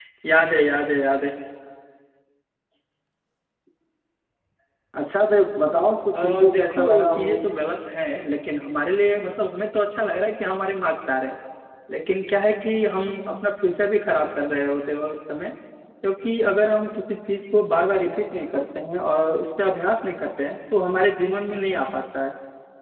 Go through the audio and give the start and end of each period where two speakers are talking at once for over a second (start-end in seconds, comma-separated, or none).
6.1-7.3